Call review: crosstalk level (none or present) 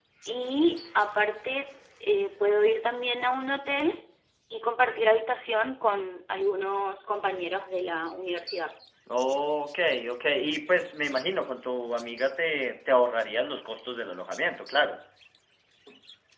none